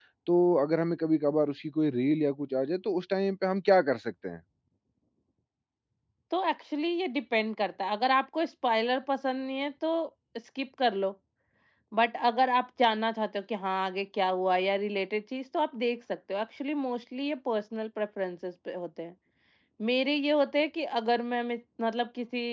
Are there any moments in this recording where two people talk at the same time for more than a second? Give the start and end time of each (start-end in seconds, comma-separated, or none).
none